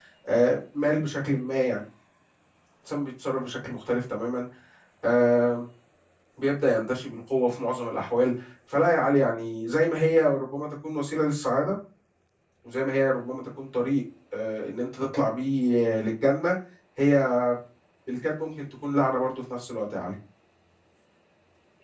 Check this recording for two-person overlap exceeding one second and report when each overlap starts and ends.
none

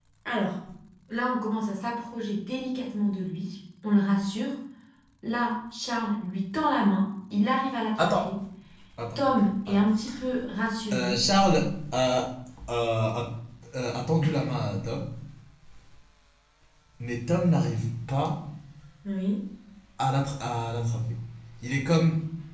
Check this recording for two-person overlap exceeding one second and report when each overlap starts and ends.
none

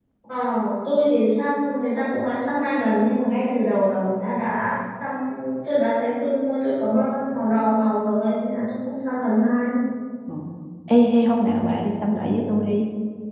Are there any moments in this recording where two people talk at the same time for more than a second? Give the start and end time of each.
none

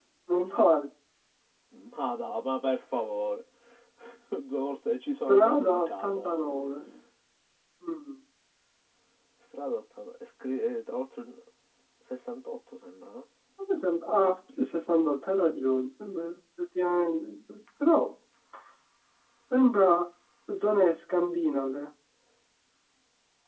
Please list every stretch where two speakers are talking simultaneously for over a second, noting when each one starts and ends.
5.3-6.5

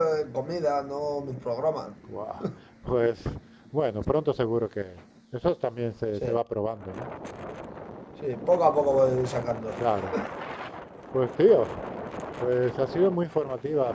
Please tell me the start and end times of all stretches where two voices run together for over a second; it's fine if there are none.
none

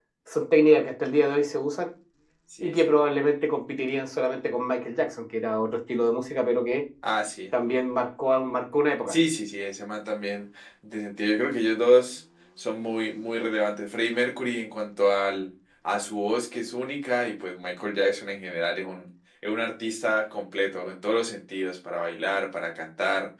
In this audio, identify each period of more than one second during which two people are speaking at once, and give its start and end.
none

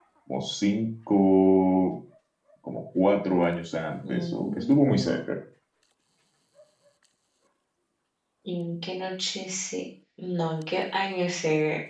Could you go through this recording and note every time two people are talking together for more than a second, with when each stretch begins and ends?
4.1-5.3

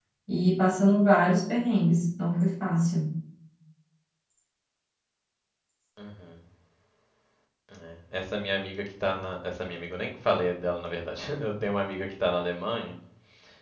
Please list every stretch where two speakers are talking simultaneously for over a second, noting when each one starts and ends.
none

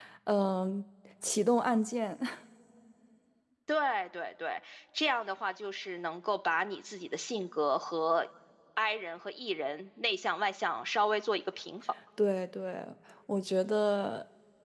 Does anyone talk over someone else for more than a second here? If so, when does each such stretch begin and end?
none

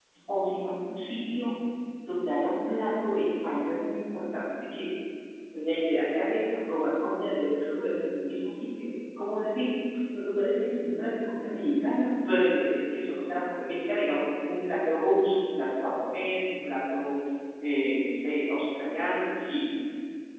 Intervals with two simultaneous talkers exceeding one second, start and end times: none

